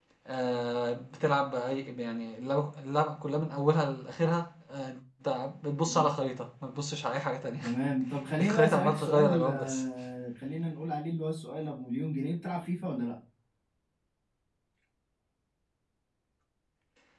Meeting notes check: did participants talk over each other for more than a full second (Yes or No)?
Yes